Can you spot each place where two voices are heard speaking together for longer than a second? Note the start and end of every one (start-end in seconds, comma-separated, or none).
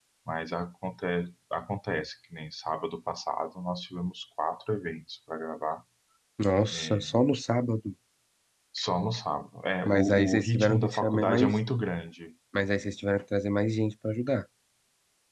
9.8-11.6